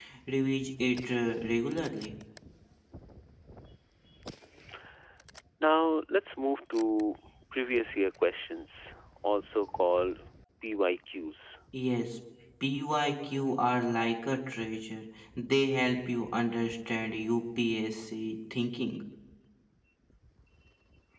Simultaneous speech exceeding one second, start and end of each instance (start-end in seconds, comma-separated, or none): none